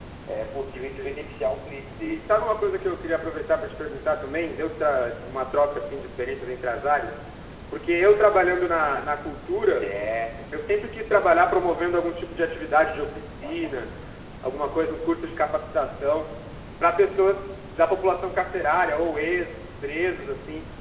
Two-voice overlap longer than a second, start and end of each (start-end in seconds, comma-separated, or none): none